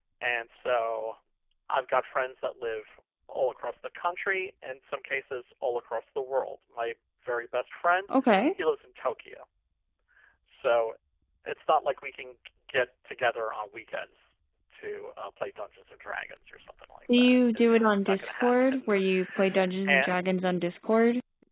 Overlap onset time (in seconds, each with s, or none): 17.1 s